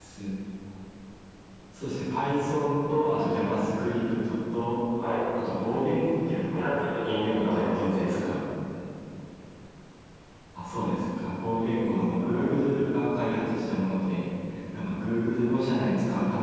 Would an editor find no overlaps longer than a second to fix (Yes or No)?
No